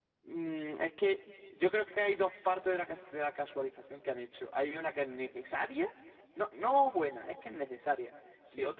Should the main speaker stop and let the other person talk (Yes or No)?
No